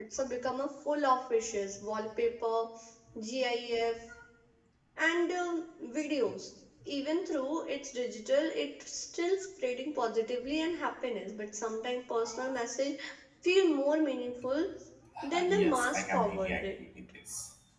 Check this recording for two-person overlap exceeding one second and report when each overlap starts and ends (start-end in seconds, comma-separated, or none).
15.2-16.7